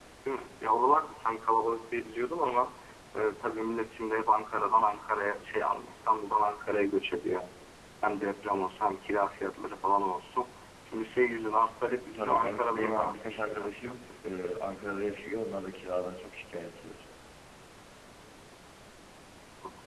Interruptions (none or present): present